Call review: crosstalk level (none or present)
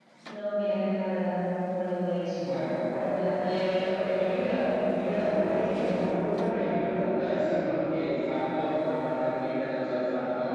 none